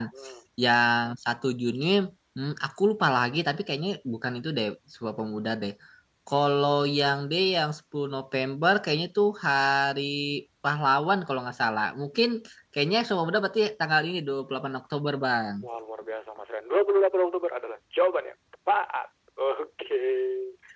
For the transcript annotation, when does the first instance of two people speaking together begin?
none

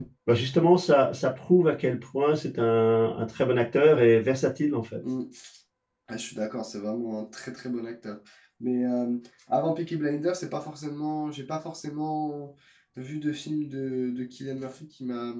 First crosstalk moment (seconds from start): none

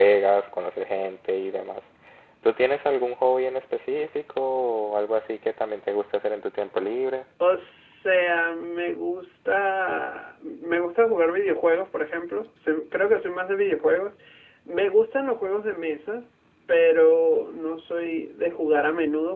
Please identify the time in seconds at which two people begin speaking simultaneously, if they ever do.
none

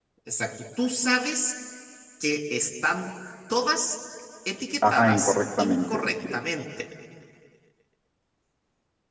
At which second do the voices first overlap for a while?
4.8 s

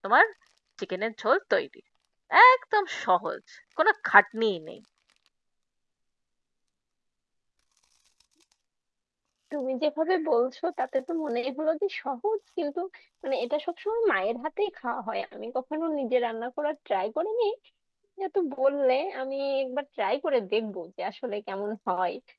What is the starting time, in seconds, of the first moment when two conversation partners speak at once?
none

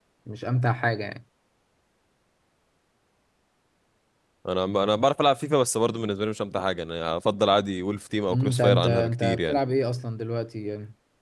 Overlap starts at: 8.3 s

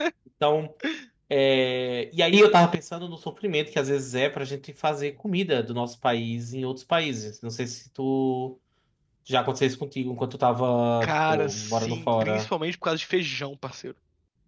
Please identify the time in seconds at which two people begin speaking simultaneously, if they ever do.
11.0 s

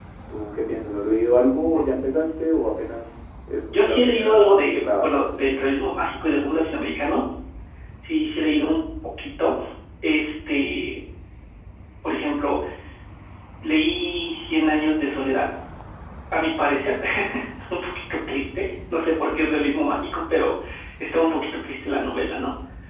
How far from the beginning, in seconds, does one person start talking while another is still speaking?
3.7 s

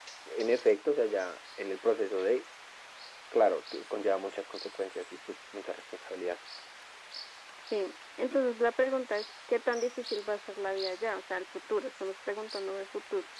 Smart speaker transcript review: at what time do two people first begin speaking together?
none

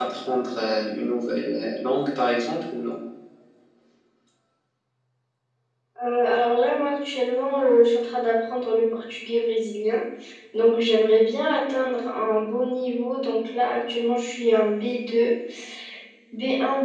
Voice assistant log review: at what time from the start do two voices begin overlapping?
none

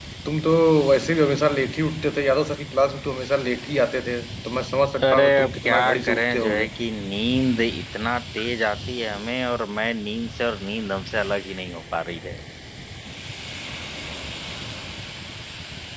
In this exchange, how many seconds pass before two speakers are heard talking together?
5.0 s

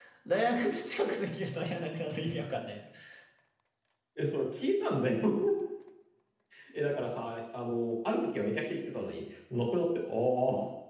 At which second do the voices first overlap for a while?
none

